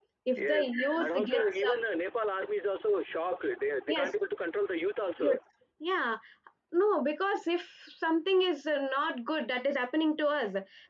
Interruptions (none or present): present